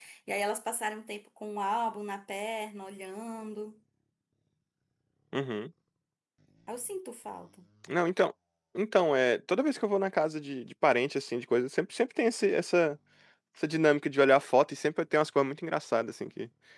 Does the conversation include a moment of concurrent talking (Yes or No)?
No